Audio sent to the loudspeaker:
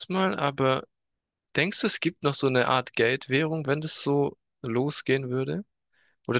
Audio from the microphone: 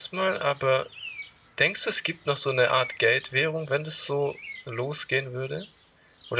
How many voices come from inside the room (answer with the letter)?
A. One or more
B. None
B